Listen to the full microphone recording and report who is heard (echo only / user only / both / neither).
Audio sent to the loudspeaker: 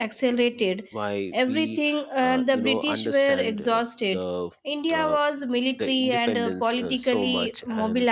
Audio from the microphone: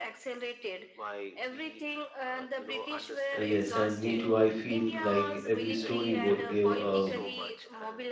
both